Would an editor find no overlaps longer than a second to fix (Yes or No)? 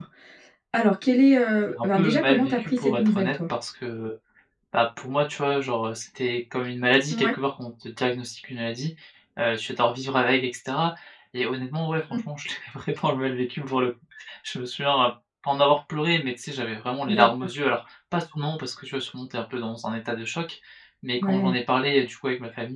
No